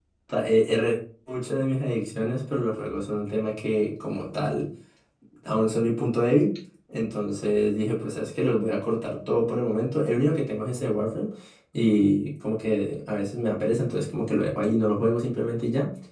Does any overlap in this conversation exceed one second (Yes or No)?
No